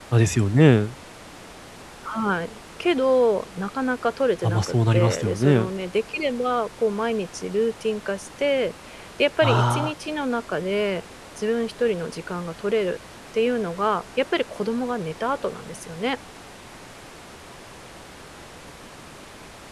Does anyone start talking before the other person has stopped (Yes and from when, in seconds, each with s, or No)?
Yes, from 4.4 s